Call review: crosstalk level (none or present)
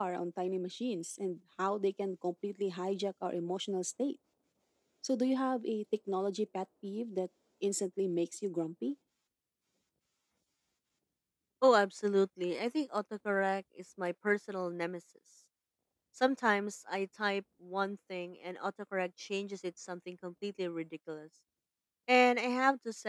none